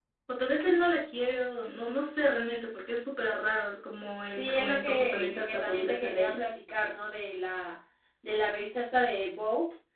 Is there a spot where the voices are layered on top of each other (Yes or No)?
Yes